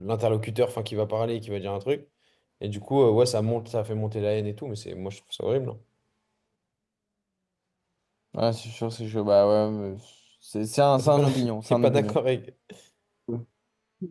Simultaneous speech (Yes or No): Yes